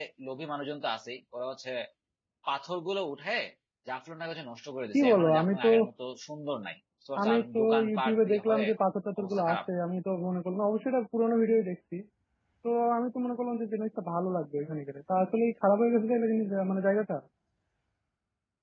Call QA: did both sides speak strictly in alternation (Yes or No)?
No